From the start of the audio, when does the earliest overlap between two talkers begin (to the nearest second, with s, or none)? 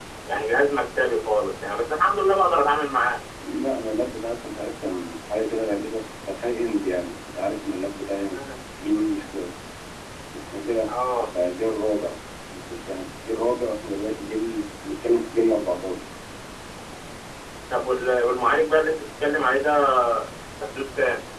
none